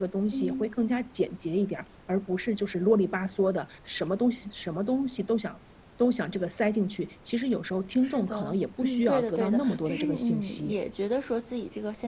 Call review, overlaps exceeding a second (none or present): present